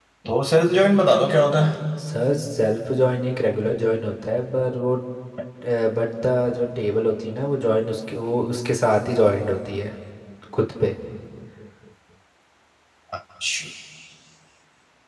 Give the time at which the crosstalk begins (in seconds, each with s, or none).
none